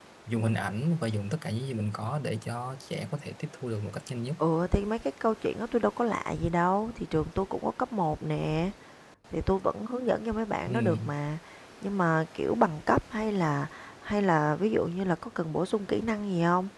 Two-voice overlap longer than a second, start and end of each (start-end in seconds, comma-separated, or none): none